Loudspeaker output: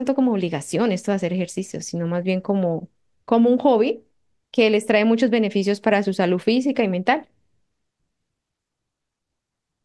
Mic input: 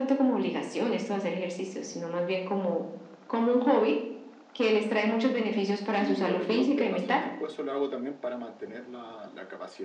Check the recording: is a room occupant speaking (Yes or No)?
Yes